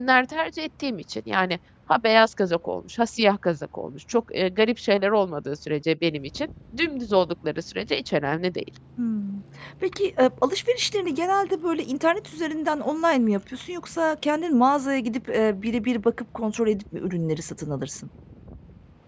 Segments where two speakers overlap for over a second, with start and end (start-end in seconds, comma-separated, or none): none